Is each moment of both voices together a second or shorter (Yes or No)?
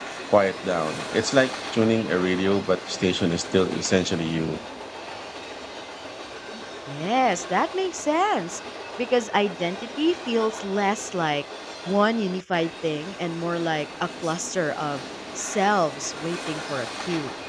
Yes